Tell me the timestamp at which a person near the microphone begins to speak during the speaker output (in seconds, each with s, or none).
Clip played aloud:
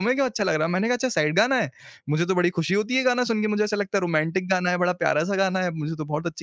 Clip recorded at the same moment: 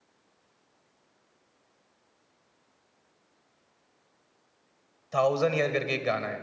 5.1 s